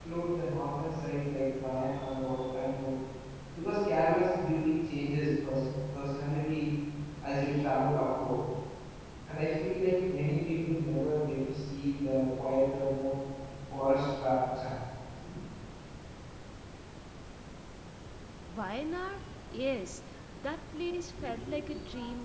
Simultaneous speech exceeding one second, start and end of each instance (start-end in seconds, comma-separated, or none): none